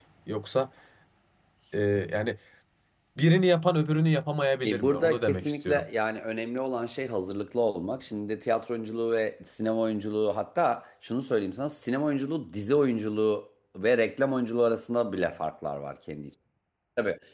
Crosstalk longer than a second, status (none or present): present